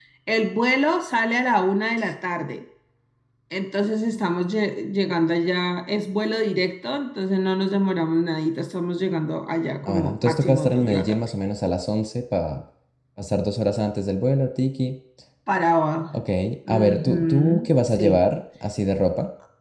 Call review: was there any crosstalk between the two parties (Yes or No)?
Yes